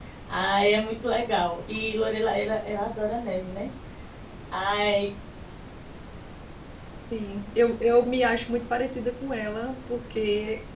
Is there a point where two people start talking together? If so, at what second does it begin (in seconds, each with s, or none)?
none